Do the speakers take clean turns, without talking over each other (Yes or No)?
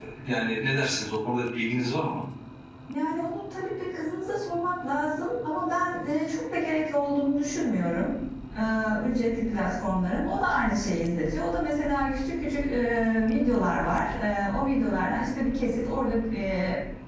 Yes